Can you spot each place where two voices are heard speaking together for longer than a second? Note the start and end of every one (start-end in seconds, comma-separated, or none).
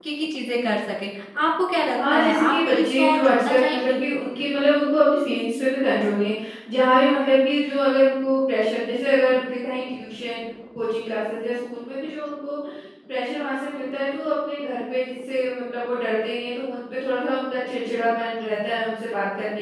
2.1-4.0